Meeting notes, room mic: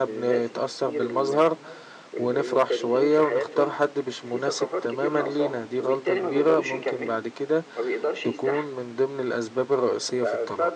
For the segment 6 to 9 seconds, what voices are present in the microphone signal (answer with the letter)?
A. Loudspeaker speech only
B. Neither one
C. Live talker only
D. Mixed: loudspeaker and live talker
D